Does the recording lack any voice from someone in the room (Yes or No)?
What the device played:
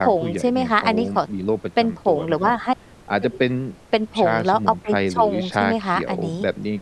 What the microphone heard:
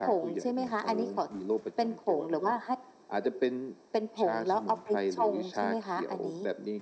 Yes